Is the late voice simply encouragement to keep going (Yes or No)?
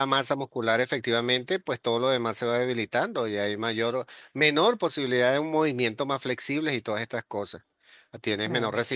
Yes